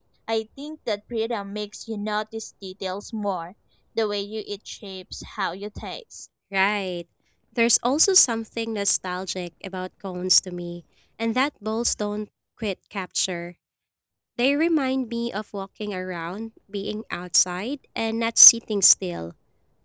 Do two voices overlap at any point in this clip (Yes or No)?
No